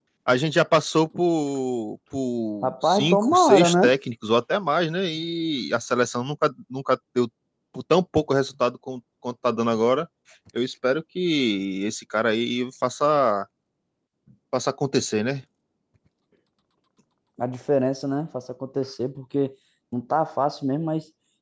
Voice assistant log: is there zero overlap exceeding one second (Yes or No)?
No